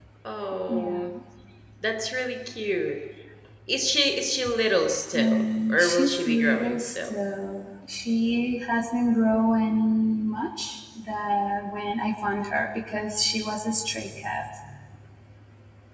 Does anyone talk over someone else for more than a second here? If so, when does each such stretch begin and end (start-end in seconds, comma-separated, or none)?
5.2-7.1